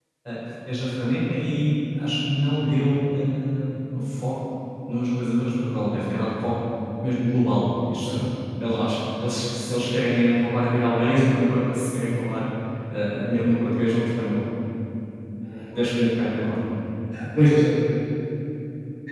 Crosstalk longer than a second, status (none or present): none